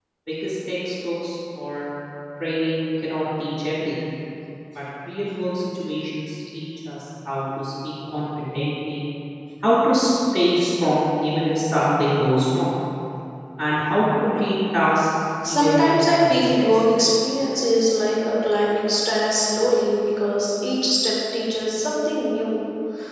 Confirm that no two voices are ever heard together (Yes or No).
No